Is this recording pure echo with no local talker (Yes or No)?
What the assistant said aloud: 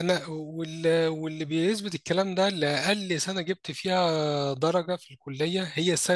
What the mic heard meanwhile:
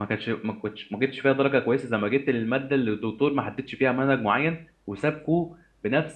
No